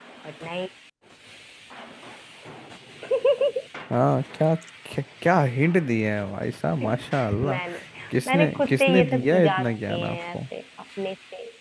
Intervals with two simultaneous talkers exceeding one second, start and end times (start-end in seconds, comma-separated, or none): 8.3-10.3